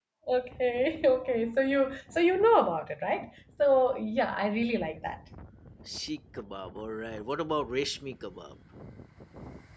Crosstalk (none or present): none